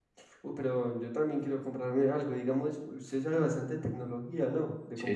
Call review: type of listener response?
taking over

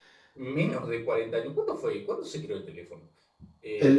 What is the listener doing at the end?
taking over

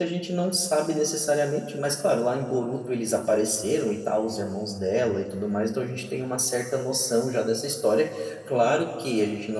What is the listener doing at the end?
listening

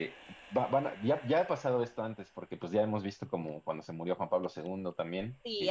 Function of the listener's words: listening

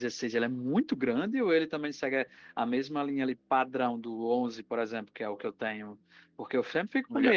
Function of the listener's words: listening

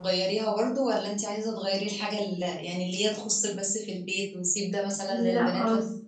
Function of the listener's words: taking over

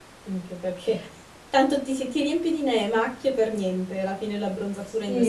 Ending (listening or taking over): taking over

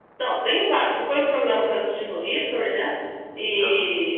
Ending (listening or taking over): listening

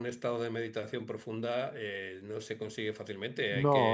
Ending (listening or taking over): listening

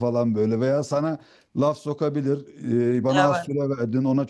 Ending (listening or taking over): listening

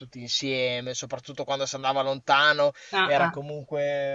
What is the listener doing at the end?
listening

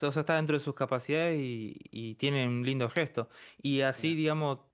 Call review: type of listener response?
listening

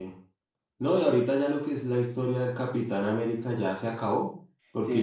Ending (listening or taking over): listening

